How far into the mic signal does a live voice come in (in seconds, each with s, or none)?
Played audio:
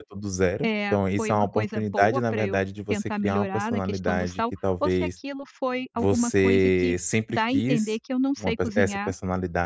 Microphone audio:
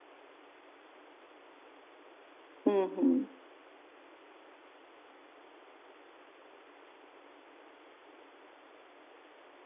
2.6 s